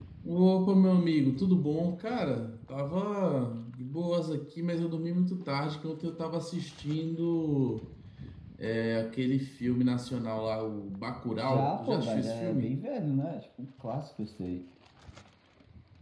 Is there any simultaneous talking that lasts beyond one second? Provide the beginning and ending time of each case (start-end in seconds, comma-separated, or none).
11.4-12.7